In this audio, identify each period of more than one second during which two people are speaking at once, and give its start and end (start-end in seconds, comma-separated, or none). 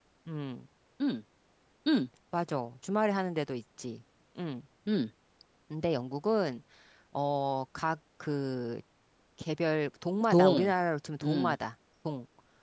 none